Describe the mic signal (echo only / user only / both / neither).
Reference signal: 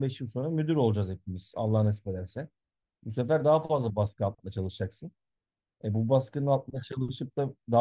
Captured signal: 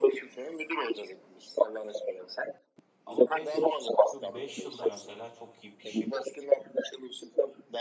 both